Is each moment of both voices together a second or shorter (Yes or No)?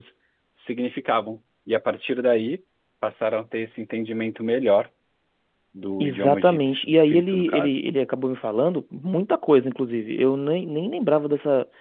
No